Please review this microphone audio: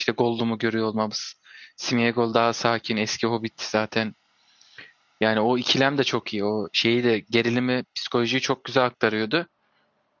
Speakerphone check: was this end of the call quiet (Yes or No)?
No